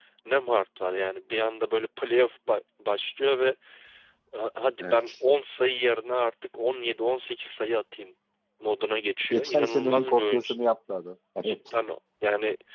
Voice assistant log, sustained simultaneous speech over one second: present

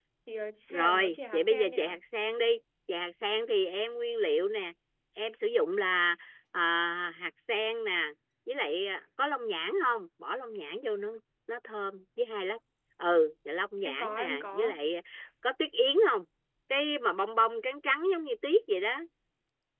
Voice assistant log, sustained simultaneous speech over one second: present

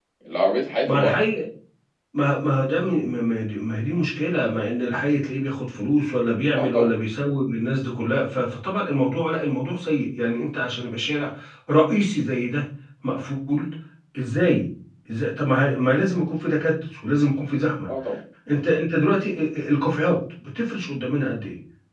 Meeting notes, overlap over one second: none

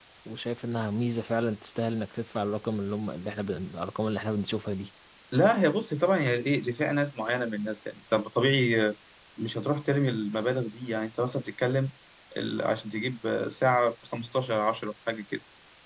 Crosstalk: none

